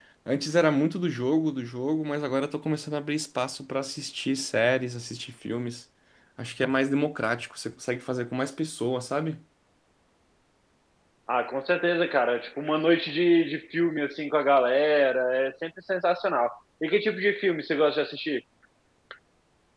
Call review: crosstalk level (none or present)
none